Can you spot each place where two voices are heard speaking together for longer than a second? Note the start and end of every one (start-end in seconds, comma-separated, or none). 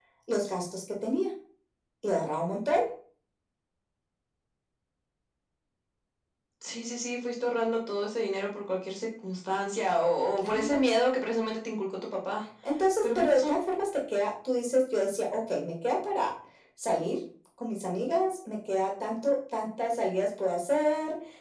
none